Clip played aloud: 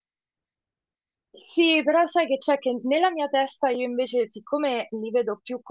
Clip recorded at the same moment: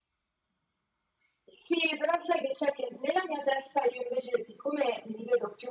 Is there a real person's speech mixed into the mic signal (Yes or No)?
No